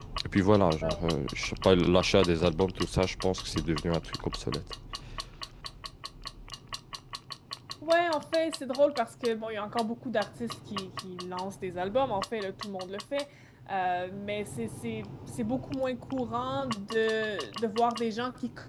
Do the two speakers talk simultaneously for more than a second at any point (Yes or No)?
No